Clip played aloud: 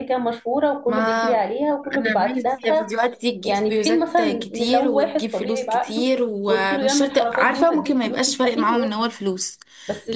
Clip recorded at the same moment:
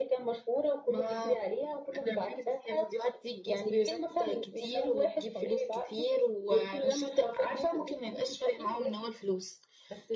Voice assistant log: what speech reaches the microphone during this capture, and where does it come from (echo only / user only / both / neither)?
echo only